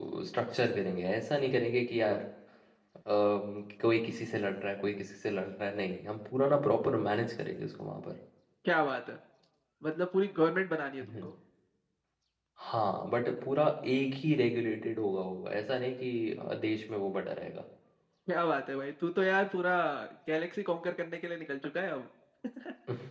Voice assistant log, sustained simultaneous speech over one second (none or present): none